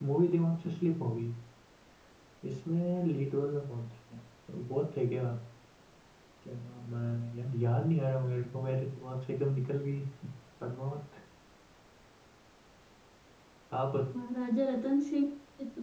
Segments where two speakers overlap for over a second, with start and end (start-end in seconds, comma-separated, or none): none